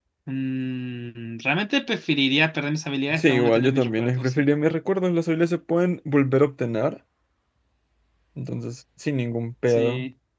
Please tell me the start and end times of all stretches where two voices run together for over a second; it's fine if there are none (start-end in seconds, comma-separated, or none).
3.1-4.4